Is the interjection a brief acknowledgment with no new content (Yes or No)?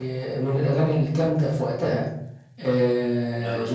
Yes